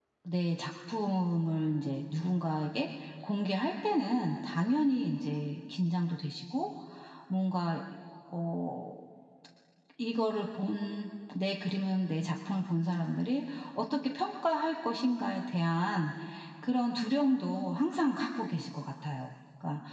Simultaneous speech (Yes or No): No